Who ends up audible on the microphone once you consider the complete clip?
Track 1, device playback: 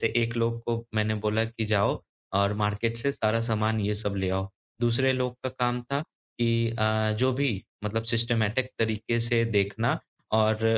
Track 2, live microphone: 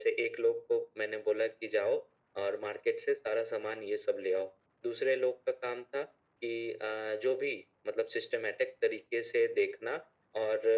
echo only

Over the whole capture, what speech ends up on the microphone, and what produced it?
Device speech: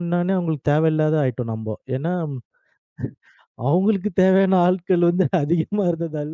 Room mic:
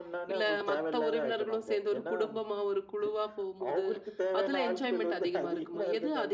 both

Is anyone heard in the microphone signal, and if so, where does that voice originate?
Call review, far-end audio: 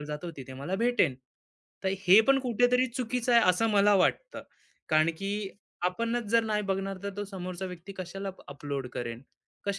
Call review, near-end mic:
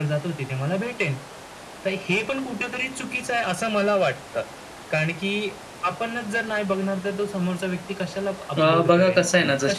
both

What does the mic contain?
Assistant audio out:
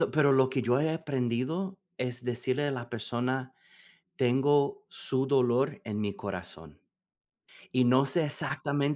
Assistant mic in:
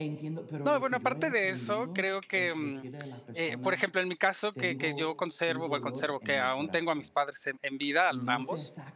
both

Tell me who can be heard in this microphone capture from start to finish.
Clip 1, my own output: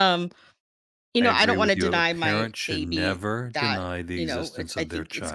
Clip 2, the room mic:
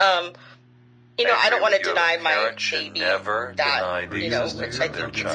both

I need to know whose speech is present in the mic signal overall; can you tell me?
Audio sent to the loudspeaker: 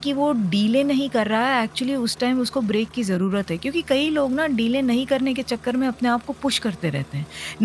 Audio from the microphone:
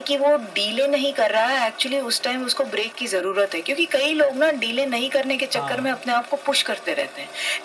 both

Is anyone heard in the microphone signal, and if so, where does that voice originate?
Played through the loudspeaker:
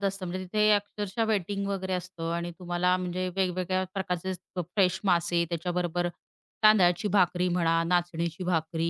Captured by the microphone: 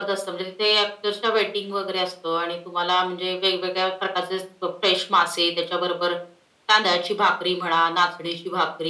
echo only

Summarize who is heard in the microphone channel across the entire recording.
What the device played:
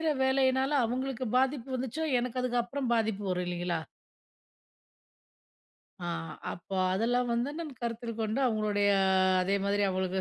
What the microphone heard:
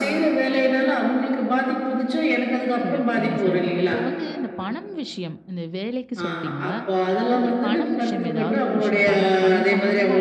both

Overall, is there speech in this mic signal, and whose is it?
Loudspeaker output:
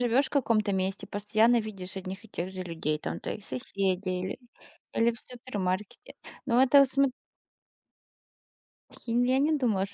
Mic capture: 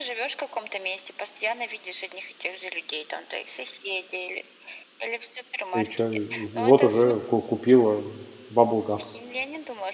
both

